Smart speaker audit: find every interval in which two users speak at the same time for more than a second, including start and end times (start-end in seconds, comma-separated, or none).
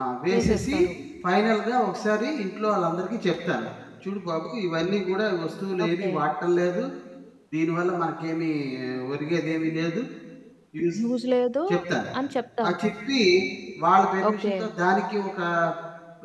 none